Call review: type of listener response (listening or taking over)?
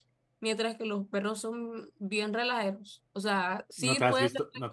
taking over